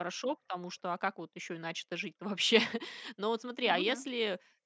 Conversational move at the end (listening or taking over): listening